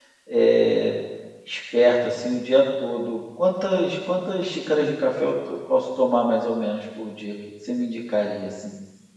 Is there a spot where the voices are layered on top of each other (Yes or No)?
No